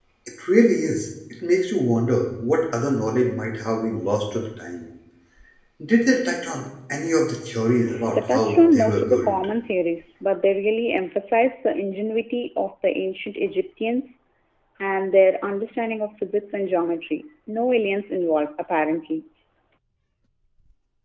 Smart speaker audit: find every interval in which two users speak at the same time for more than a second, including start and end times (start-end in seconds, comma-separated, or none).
8.1-9.3